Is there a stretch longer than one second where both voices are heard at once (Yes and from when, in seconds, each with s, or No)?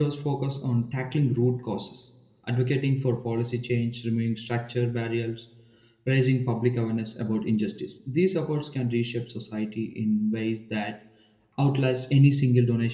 No